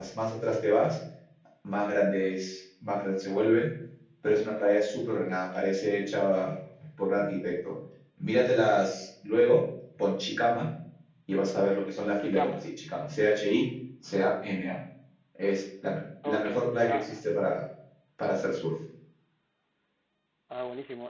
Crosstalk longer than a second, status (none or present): none